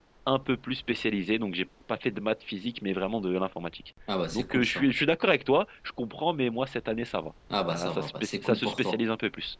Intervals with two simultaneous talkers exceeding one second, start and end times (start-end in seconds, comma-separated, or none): 7.7-9.0